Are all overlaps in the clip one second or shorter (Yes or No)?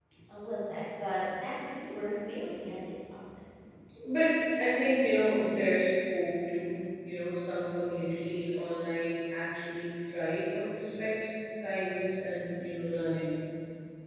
Yes